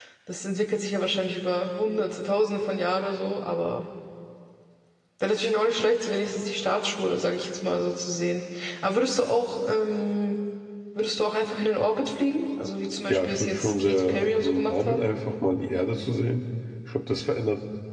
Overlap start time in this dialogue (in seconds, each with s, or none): 13.1 s